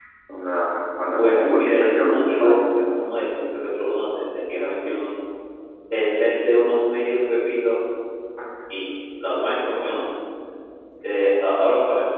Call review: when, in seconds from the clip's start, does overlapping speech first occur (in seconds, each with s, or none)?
1.2 s